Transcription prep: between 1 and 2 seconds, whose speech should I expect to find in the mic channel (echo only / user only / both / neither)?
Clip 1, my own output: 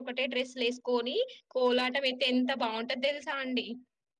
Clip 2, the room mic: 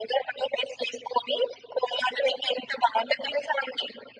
echo only